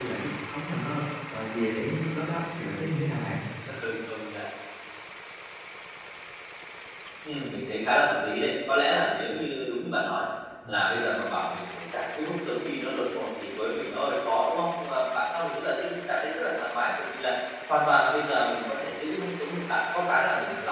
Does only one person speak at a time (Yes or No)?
Yes